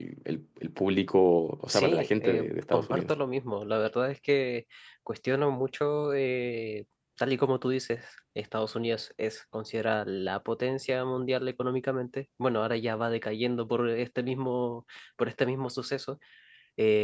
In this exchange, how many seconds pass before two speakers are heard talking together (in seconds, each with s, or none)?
1.7 s